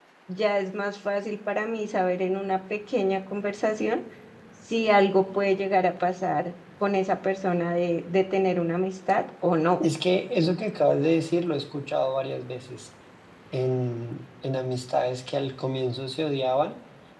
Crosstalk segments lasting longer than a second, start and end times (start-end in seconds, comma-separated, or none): none